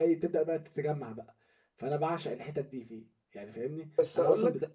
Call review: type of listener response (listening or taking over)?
taking over